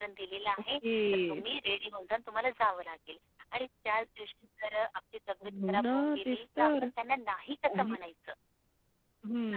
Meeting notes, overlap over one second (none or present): present